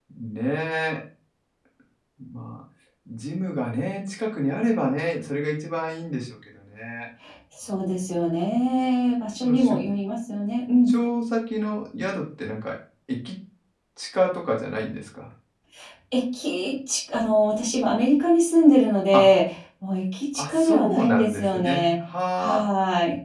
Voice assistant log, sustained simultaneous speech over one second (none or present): present